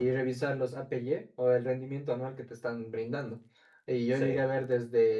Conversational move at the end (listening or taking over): listening